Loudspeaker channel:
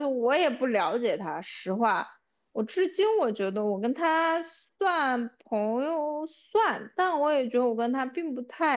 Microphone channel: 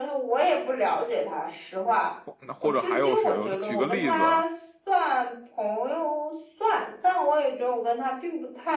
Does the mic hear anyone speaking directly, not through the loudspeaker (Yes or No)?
Yes